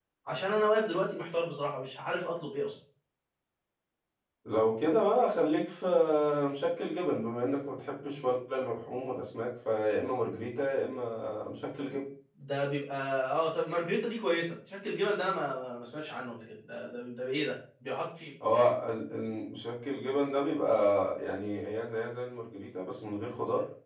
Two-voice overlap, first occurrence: none

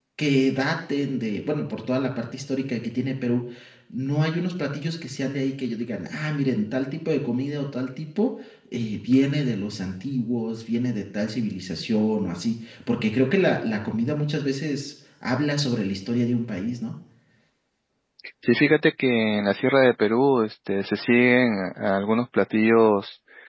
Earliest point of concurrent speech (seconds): none

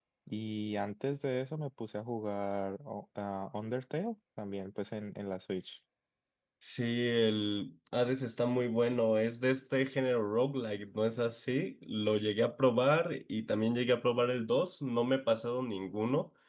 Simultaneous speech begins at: none

